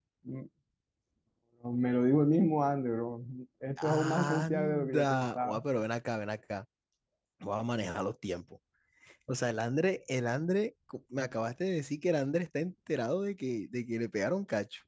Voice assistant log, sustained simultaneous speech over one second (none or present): present